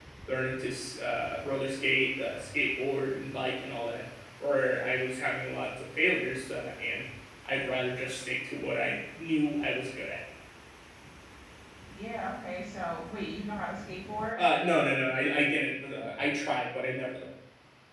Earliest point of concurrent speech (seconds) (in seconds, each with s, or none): none